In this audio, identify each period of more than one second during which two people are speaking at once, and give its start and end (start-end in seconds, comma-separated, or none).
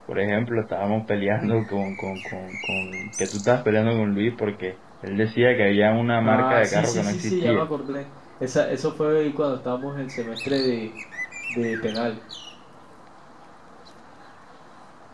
6.2-7.7